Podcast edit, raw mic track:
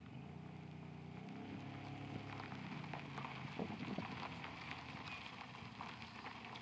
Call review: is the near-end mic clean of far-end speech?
Yes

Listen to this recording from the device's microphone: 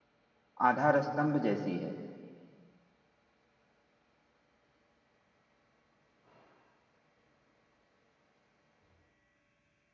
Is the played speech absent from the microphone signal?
Yes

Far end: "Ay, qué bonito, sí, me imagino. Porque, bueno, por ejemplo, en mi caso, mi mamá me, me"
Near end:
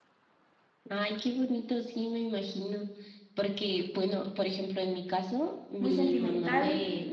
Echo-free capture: No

